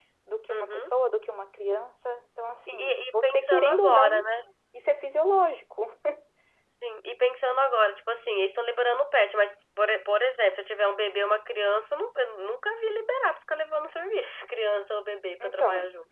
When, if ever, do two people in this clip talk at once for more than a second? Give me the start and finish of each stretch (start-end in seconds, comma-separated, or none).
2.7-4.2